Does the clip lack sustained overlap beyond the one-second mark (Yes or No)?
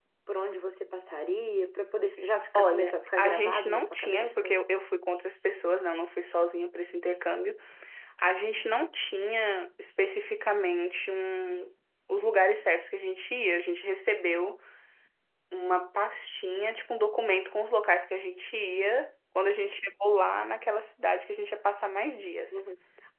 No